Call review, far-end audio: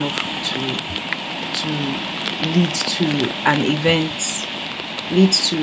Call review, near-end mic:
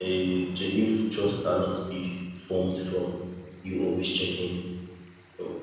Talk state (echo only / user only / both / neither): user only